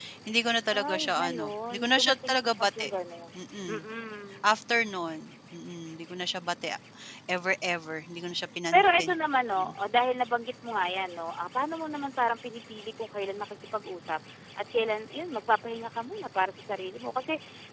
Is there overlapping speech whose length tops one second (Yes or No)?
Yes